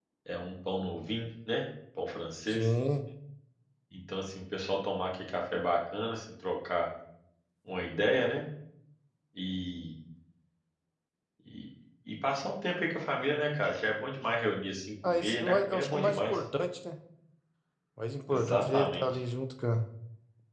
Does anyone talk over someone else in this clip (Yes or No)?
Yes